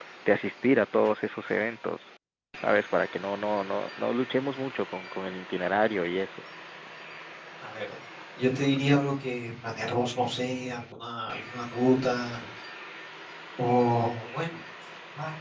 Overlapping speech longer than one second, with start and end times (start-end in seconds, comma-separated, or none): none